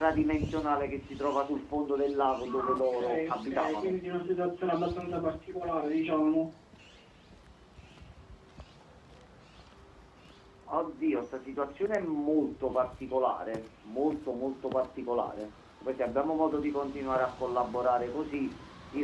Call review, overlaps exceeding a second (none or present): present